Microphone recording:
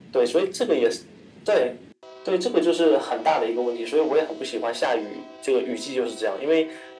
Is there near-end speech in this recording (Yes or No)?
No